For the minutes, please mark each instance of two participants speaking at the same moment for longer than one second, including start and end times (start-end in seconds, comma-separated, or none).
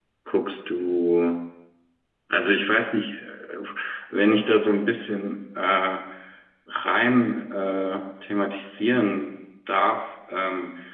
none